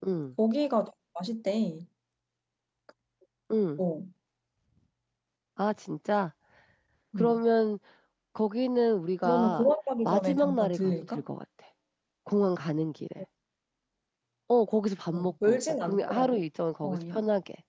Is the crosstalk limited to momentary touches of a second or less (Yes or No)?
No